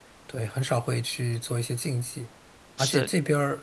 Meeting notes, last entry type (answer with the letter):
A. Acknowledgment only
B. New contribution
A